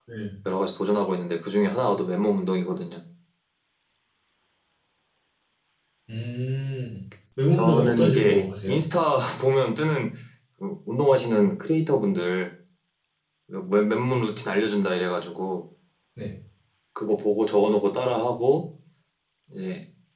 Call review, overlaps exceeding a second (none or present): present